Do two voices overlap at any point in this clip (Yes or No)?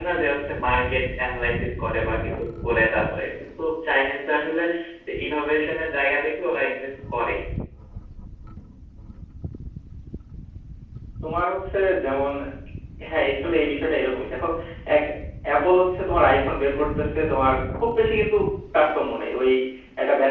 No